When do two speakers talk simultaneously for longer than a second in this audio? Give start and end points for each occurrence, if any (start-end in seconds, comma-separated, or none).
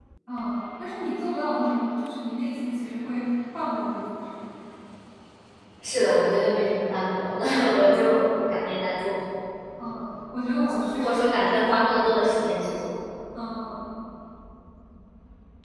11.0-12.4